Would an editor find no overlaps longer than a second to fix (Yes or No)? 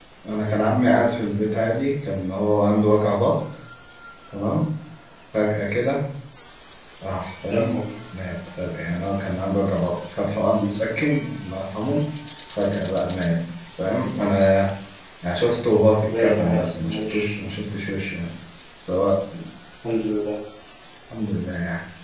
No